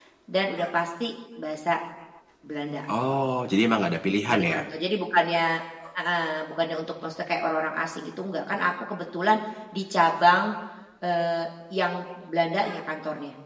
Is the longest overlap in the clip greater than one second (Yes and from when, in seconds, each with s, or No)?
No